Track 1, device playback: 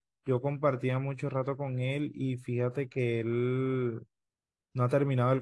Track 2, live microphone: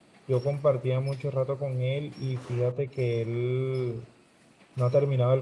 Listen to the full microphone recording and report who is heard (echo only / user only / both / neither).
echo only